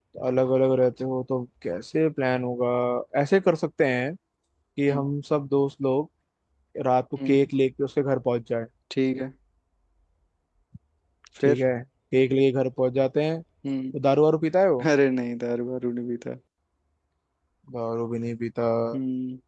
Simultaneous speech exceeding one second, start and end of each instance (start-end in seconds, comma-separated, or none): none